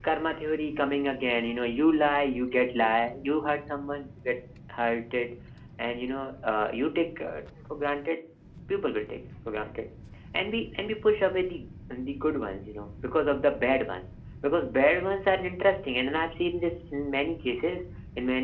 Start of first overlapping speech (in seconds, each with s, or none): none